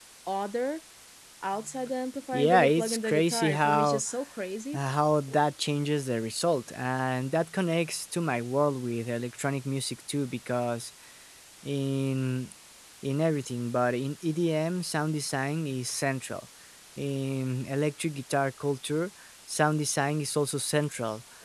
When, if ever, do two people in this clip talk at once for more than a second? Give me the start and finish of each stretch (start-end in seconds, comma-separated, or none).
2.3-4.0